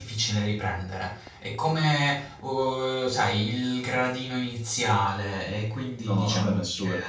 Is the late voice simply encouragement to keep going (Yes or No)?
No